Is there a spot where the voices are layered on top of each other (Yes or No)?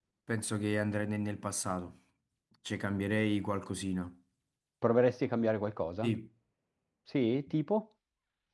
No